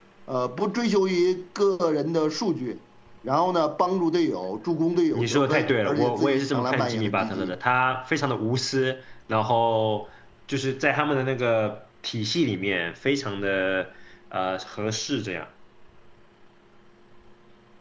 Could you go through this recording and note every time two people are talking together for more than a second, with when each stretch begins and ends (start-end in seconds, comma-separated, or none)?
5.1-7.5